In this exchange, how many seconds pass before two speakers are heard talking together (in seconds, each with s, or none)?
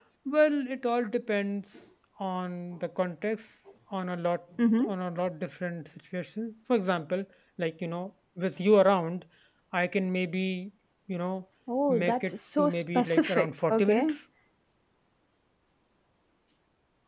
11.9 s